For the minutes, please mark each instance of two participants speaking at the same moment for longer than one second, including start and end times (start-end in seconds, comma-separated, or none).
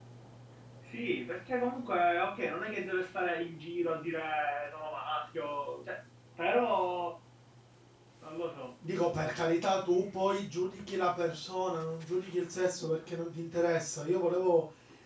none